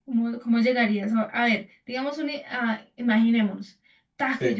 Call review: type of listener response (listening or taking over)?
listening